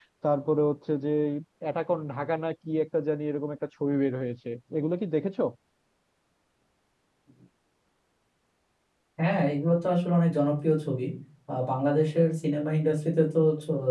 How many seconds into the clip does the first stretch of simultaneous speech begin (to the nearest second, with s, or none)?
none